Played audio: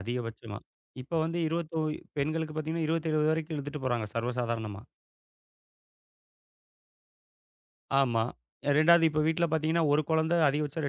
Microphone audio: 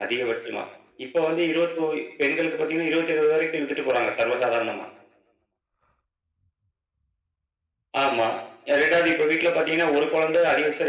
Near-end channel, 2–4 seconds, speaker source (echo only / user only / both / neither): echo only